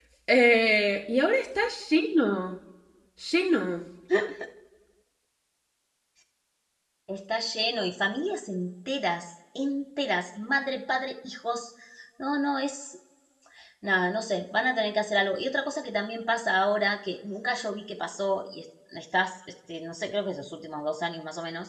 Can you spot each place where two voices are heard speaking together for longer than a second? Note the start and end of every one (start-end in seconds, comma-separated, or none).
none